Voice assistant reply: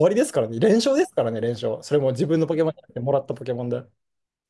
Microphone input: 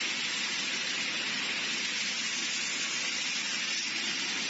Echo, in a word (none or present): none